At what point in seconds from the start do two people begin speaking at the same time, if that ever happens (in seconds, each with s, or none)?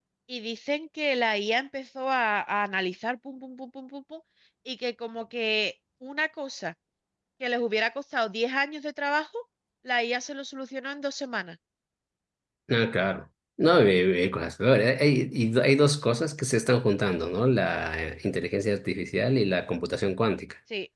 none